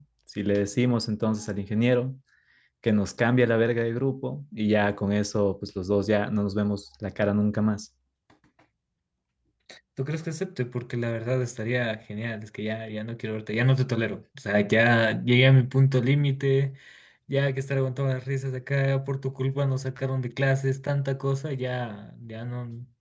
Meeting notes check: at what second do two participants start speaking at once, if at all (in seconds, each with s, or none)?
none